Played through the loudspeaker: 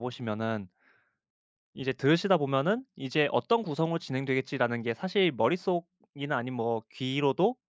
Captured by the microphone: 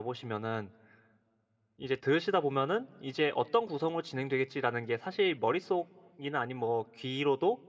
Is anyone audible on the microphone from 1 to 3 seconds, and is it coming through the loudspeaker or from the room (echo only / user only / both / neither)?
echo only